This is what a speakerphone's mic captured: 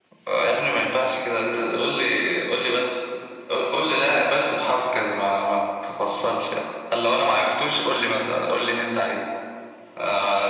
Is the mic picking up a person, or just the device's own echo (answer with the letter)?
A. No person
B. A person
A